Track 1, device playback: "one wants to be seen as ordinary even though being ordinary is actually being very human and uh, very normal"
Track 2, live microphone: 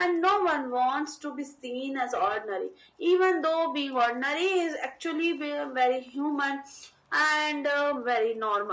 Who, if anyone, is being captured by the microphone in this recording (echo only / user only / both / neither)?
echo only